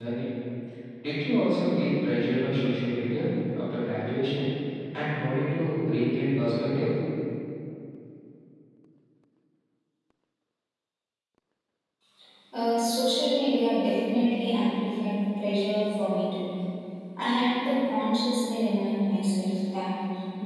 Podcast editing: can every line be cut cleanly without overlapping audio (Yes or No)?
Yes